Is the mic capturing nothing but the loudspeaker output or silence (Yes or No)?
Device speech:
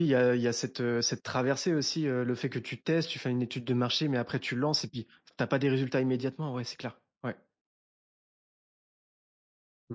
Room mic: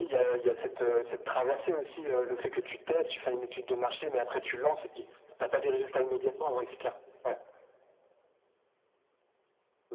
Yes